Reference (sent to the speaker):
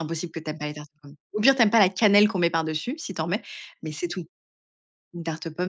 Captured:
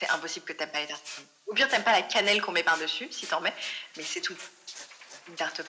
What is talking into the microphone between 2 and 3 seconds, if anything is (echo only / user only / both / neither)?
echo only